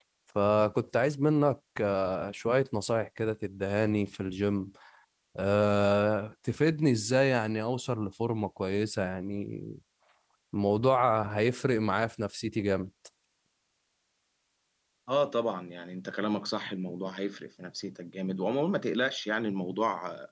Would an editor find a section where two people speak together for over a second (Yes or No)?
No